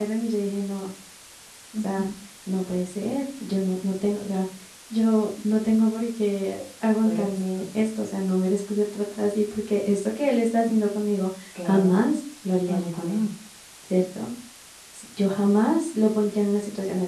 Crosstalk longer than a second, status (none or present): none